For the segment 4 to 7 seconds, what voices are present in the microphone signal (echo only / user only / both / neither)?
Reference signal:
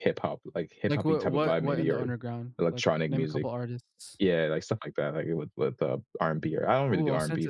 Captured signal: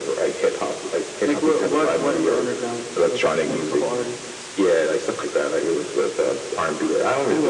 echo only